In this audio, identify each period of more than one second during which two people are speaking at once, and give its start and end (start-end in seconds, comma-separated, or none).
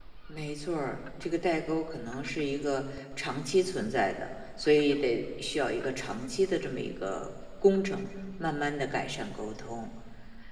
none